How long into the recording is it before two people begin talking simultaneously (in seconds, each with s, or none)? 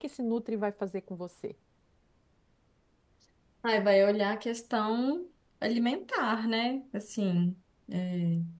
none